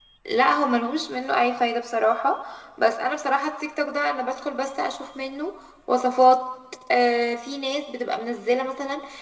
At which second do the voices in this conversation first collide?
none

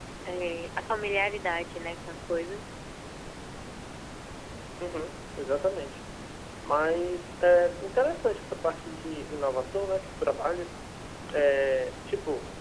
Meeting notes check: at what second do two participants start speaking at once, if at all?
none

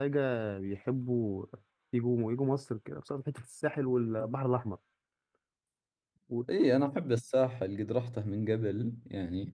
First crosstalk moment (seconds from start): none

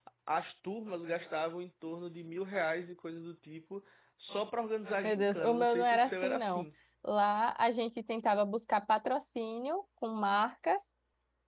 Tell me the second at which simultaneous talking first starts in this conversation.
5 s

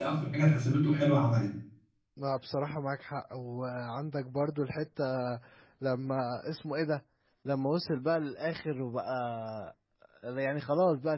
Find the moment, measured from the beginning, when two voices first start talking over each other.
none

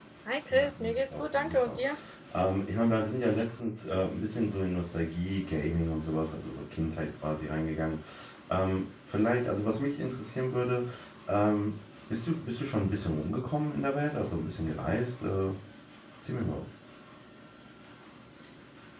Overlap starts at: 1 s

